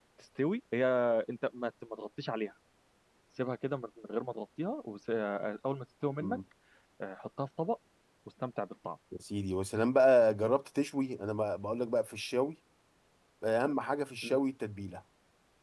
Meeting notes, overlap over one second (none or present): none